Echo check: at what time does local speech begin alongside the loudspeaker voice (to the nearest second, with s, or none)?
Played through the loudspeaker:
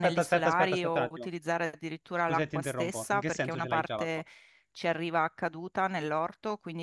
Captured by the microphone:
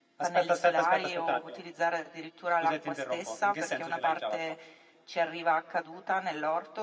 none